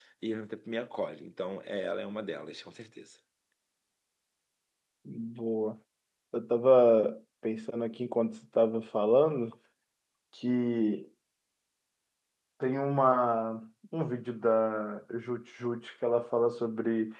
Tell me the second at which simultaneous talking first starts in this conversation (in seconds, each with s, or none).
none